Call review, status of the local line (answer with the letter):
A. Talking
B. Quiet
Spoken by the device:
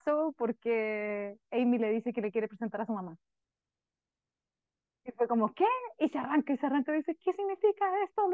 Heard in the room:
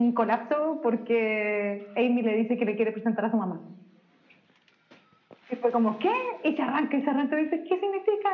B